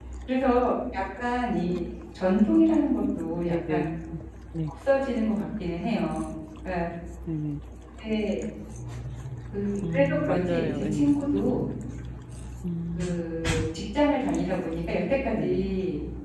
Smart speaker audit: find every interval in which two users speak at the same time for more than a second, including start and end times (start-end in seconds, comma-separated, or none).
9.9-11.6